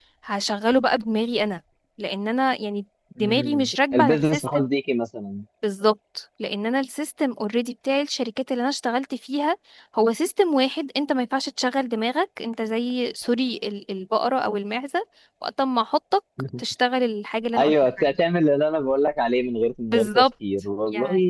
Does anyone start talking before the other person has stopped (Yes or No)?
Yes